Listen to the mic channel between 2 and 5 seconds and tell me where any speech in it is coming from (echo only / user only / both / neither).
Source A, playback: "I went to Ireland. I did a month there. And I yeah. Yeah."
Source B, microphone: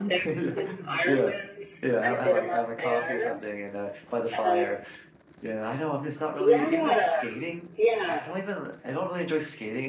both